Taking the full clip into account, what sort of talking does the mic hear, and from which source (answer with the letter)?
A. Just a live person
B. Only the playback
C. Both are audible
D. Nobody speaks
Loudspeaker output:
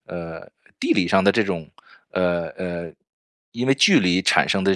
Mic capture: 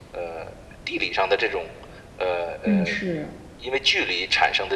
C